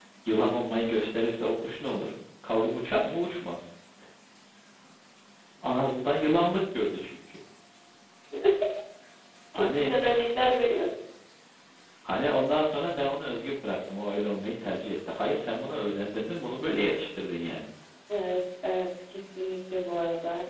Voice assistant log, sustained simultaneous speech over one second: none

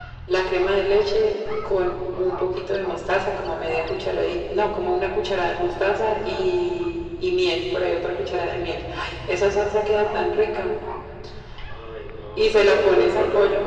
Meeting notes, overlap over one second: present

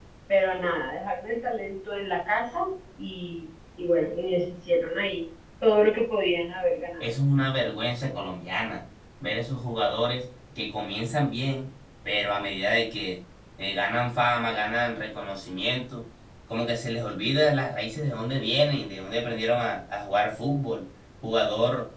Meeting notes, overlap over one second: none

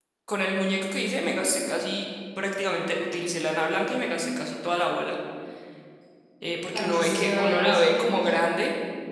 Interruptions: present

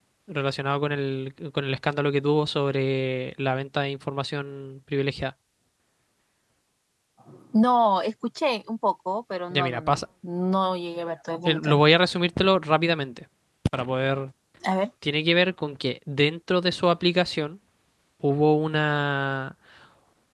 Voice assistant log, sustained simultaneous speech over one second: none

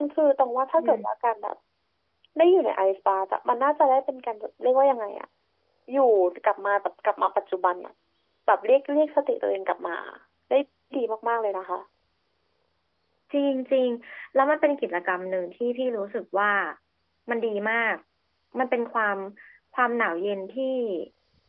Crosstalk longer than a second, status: none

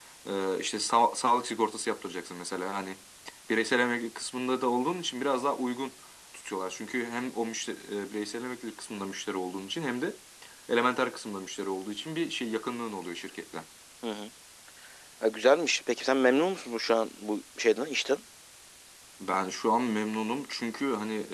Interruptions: none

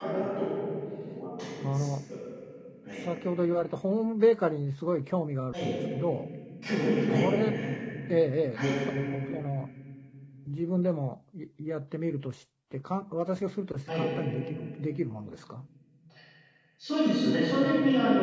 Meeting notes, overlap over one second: none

